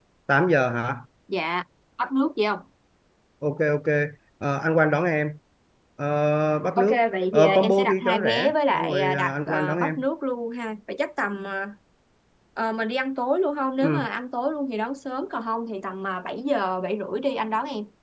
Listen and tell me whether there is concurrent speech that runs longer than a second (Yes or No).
Yes